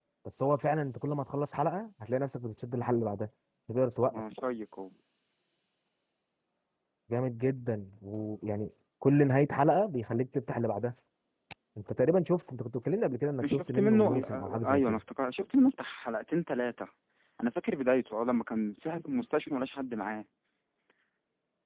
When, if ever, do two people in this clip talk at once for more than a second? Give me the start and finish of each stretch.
13.4-15.0

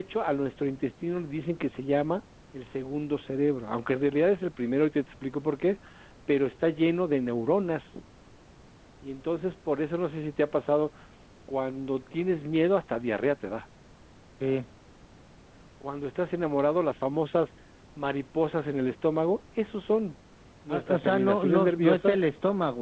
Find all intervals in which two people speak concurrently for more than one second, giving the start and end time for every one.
20.7-22.2

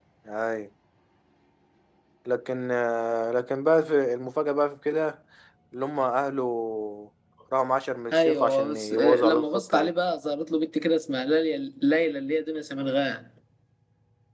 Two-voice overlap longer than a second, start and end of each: 8.1-9.9

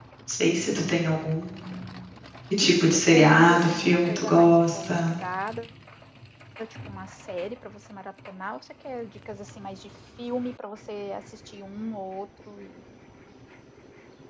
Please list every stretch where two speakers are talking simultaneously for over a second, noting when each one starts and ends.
2.8-5.2

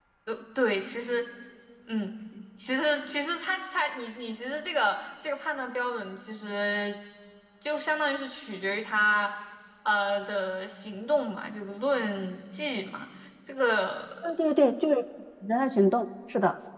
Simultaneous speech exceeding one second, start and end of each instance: none

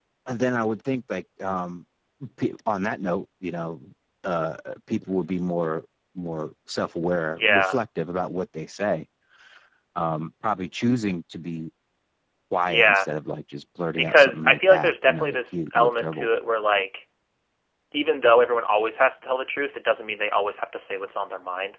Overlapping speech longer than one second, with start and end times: 14.0-16.3

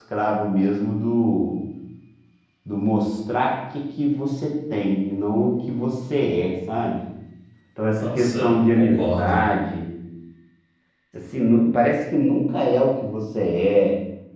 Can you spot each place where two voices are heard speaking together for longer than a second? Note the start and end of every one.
8.0-9.4

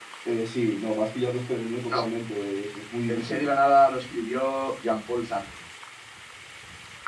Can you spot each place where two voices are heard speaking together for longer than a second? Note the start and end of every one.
none

